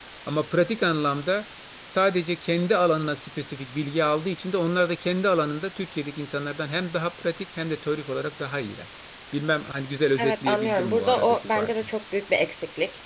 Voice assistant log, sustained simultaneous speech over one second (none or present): present